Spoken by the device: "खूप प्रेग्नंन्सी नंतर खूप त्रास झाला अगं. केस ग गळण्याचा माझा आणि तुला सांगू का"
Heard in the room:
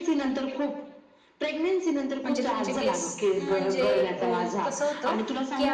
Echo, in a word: present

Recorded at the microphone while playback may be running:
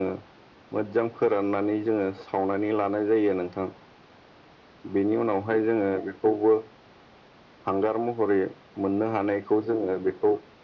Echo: present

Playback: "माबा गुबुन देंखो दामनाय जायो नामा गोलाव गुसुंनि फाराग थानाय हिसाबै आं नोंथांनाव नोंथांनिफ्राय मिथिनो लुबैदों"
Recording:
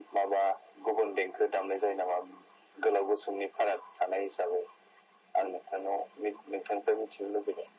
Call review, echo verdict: present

